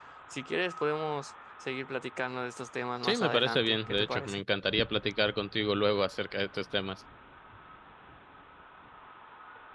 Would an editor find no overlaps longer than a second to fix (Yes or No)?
No